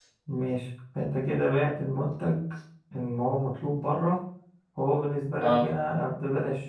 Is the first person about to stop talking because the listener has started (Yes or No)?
No